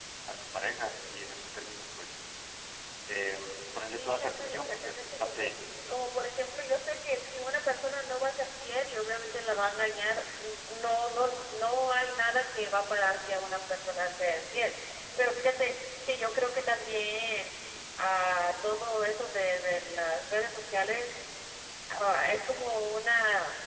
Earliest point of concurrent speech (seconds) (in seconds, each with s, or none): 4.0 s